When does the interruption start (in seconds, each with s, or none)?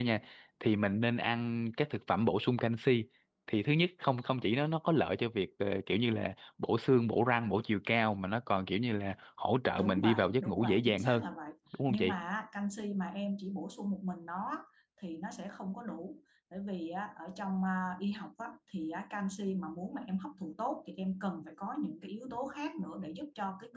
9.8 s